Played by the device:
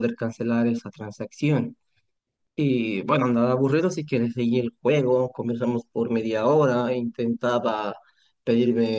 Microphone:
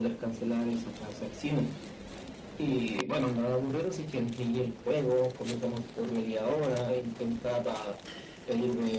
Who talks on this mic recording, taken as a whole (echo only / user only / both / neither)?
echo only